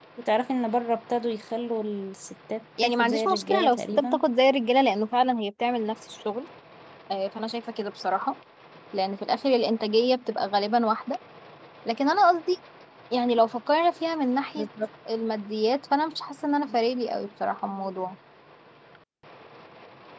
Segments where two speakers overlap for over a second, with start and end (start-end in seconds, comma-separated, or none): 2.8-4.2